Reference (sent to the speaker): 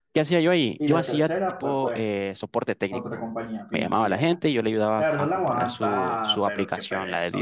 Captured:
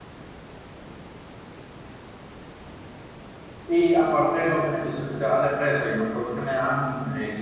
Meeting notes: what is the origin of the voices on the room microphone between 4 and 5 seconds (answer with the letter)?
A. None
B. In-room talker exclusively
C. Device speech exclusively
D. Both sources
B